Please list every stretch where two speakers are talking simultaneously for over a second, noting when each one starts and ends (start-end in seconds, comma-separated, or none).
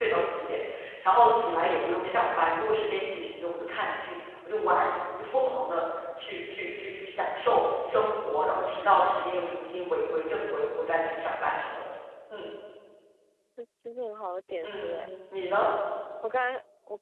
none